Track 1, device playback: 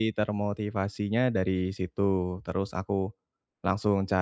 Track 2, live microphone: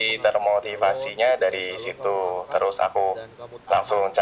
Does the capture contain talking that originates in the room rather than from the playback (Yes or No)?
Yes